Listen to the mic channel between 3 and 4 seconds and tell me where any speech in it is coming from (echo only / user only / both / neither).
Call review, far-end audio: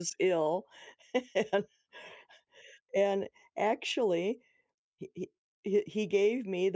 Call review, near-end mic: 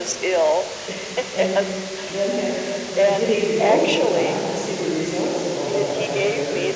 both